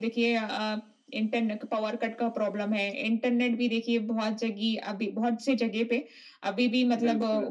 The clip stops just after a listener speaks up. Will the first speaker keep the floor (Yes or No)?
Yes